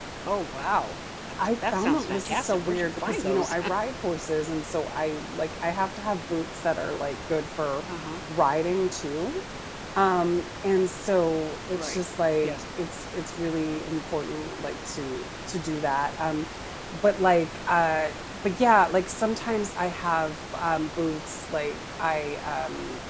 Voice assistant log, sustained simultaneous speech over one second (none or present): present